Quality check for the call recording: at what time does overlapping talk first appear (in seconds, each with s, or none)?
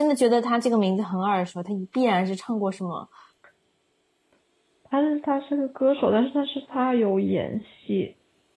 none